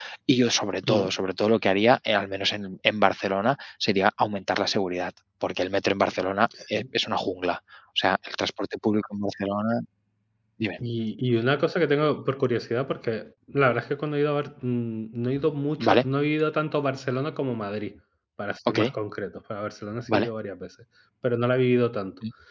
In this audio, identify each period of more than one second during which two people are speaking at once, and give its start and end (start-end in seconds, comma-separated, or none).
none